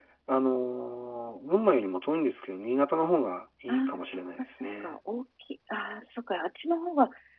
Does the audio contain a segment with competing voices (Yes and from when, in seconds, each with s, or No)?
Yes, from 3.7 s